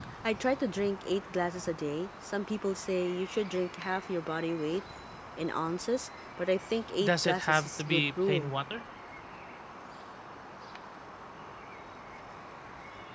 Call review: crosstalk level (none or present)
present